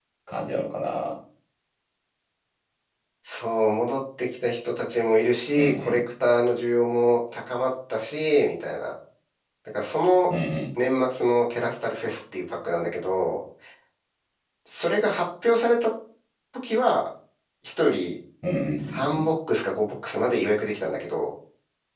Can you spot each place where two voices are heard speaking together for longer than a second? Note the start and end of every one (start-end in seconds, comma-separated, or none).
none